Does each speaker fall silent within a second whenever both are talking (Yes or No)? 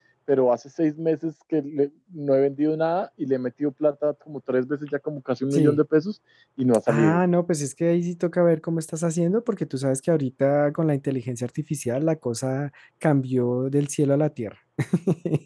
Yes